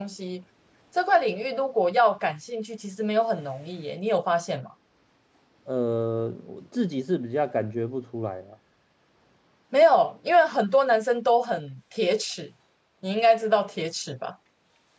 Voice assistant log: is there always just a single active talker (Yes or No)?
Yes